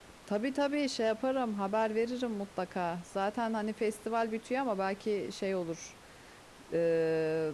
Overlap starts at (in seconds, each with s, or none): none